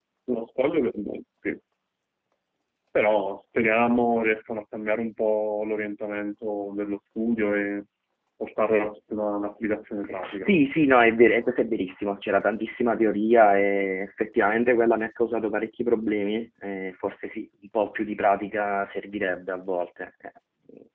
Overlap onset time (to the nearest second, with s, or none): none